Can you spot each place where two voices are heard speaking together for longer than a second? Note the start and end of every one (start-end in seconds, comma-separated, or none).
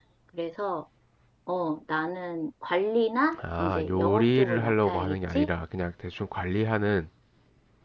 3.6-5.5